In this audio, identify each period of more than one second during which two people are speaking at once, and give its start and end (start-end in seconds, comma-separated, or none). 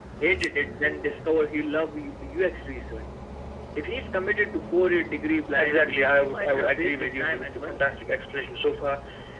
5.5-7.8